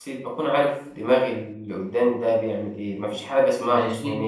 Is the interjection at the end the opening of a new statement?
No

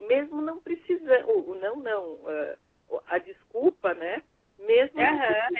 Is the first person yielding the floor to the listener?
Yes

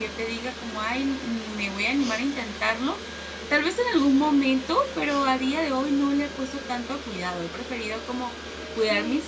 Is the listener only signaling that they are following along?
Yes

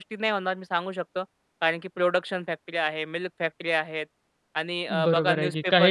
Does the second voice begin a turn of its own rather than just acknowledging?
Yes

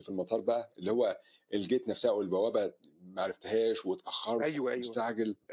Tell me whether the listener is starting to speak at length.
Yes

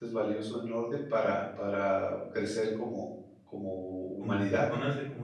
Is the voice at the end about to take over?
Yes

